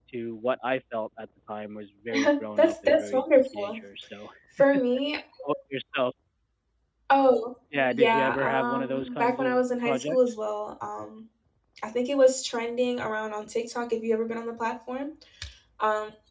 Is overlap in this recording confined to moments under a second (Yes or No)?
No